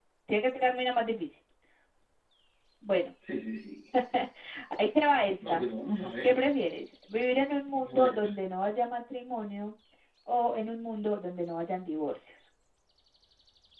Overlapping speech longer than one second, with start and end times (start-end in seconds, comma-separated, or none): none